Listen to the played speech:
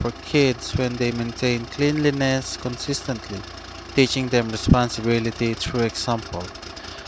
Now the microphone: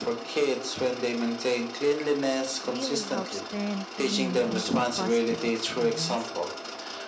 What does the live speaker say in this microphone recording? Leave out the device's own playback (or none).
really helps turn cleaning into a positive experience